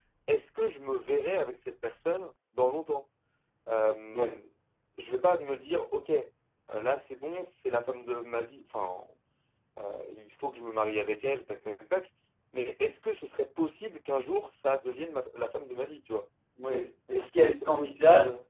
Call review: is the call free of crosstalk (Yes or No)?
No